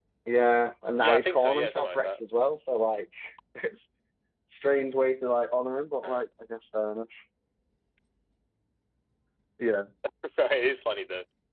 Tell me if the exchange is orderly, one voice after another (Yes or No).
No